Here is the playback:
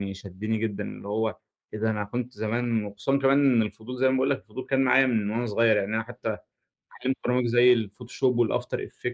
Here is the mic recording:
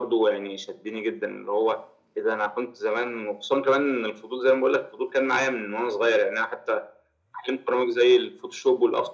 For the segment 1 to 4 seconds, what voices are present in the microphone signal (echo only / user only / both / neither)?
echo only